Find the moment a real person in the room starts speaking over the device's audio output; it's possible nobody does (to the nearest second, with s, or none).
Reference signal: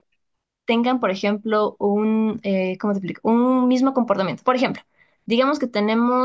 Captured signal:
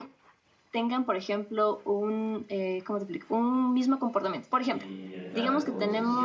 5 s